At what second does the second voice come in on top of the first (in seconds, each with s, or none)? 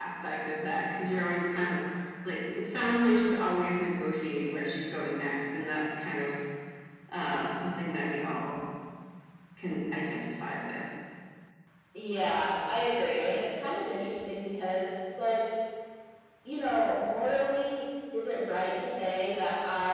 none